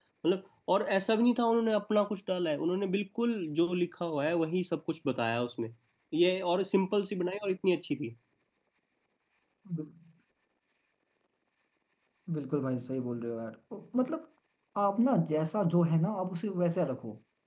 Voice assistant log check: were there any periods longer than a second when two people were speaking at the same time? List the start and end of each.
none

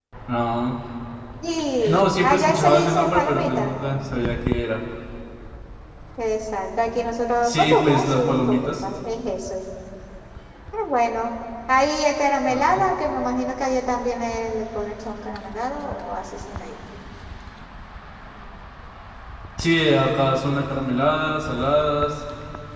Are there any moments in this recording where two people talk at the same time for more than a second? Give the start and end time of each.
1.9-3.7, 7.4-8.7

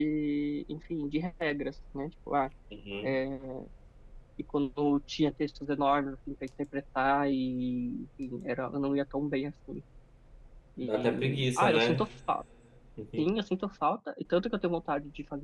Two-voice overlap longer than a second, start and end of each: 10.8-12.1

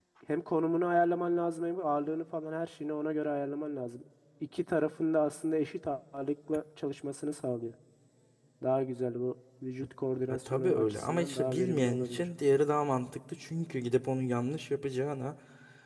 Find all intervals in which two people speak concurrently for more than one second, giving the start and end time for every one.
10.3-12.3

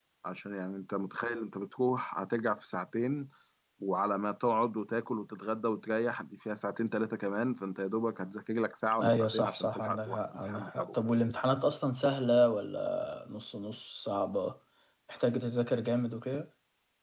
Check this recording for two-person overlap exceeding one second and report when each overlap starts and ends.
9.0-10.9

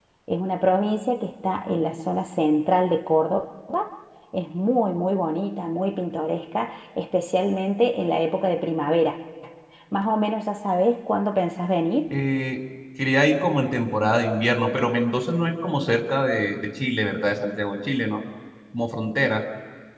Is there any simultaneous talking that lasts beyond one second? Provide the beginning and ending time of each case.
none

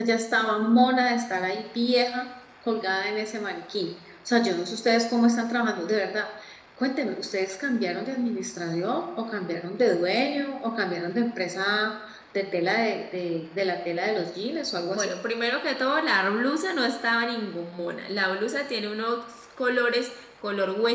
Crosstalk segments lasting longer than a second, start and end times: none

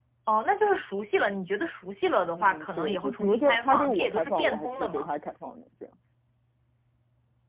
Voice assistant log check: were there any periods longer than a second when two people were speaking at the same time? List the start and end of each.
2.4-5.1

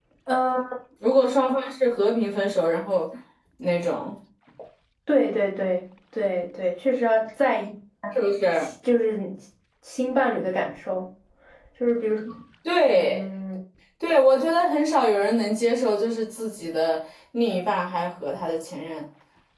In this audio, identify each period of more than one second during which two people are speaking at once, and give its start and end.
none

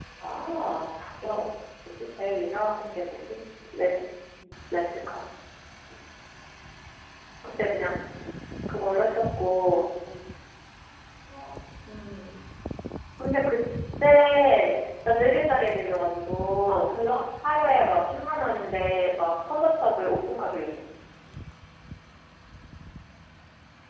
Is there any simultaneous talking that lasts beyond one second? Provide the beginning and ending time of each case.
none

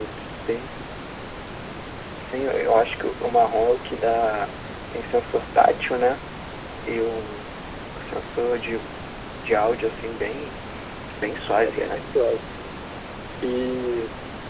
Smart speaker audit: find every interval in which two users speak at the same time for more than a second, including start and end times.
none

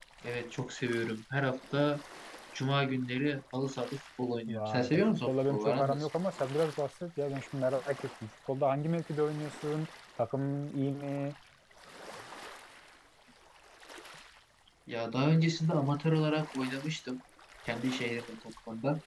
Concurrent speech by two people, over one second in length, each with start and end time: 4.5-6.1

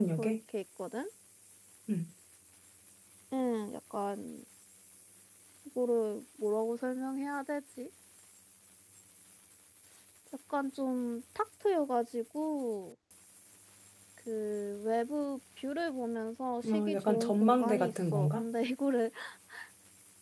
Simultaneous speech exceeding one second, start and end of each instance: 16.6-18.4

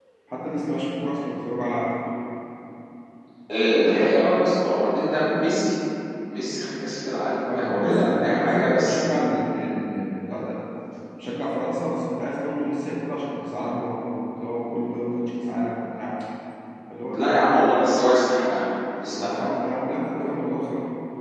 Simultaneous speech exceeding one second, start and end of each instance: 7.5-9.0

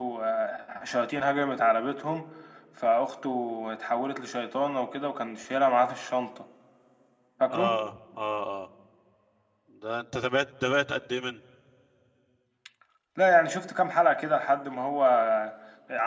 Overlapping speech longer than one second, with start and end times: none

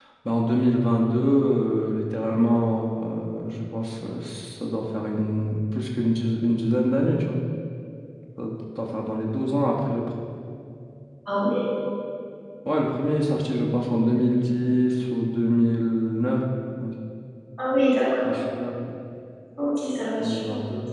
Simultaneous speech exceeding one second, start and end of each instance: none

